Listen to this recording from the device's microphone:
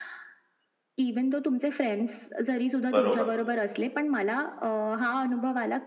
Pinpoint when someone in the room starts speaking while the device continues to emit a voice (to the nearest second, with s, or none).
3 s